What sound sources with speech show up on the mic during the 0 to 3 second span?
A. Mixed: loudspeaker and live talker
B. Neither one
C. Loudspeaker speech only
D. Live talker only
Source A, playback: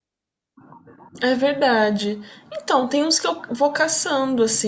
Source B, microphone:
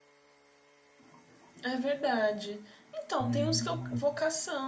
C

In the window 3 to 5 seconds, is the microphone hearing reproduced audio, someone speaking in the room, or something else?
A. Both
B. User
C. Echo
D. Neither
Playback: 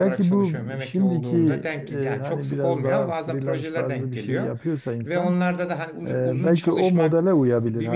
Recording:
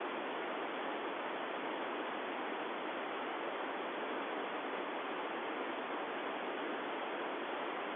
D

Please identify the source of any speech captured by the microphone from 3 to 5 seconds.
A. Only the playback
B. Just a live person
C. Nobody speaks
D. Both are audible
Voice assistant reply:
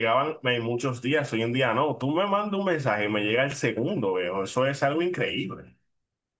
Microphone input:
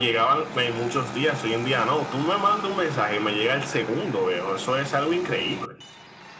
A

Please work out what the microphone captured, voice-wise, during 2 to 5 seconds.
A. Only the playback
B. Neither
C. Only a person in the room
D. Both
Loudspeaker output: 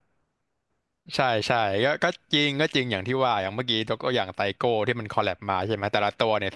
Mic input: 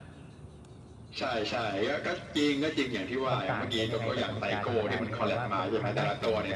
D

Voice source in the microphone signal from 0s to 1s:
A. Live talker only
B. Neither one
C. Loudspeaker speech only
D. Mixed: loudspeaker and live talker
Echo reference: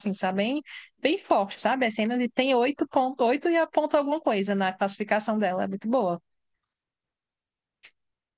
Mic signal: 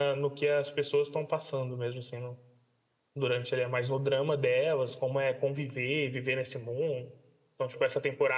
A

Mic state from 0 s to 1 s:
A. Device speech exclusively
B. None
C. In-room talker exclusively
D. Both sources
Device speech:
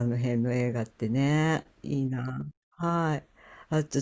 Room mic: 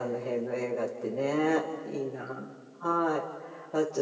A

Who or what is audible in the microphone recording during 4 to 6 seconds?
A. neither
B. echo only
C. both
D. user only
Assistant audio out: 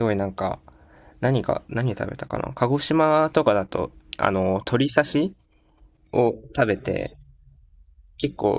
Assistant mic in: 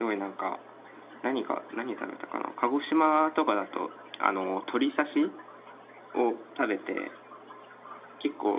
B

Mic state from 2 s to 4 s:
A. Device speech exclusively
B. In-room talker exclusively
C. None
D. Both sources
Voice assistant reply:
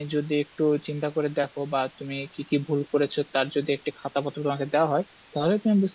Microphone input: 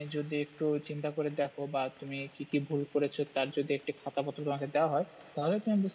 A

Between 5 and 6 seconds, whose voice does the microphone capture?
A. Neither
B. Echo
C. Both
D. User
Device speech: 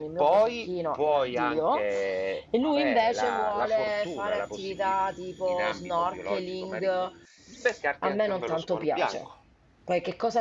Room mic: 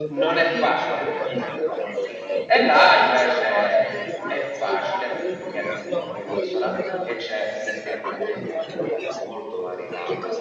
C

